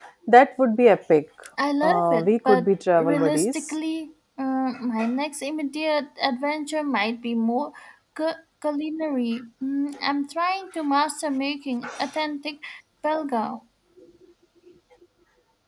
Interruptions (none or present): present